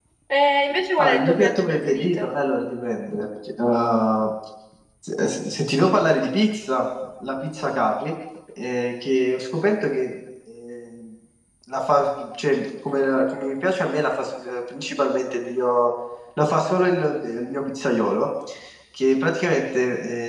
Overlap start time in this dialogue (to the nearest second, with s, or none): 1 s